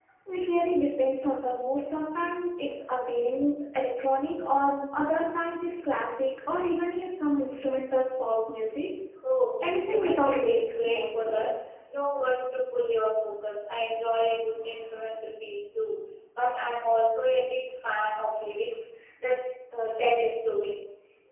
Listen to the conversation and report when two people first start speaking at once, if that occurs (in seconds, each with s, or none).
9.6 s